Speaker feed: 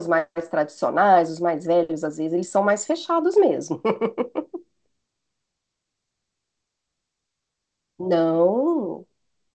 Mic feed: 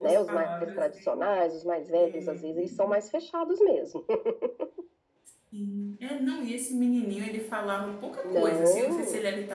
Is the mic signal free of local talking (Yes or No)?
No